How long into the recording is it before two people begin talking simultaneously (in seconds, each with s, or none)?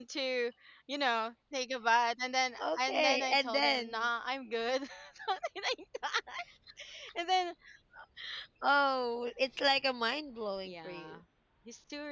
2.6 s